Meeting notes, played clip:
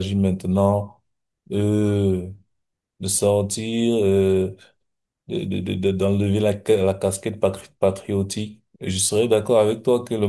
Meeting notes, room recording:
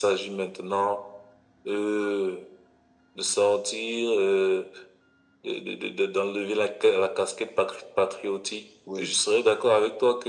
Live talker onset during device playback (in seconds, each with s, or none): 8.8 s